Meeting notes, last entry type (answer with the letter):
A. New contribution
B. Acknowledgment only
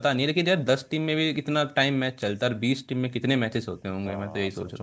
A